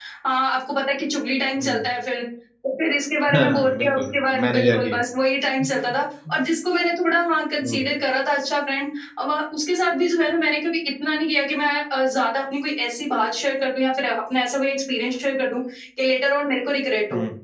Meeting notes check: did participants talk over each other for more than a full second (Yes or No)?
Yes